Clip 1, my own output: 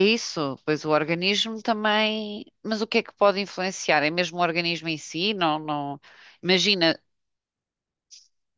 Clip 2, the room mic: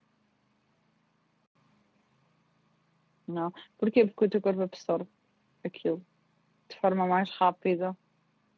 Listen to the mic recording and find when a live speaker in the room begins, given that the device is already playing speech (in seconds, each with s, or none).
3.3 s